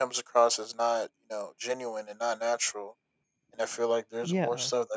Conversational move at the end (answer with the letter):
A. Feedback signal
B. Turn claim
A